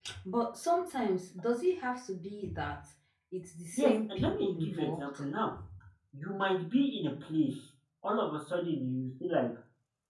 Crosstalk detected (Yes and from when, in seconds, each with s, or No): Yes, from 3.7 s